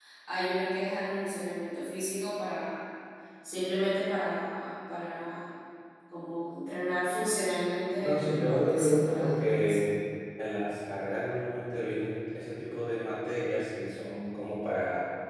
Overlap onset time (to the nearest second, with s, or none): 8 s